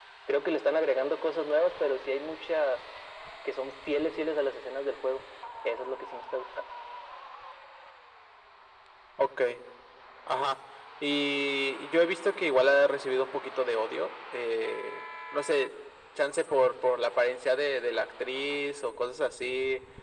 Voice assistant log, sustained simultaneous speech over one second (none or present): none